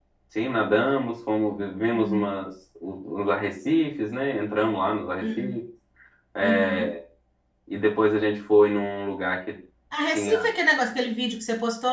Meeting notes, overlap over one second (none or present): none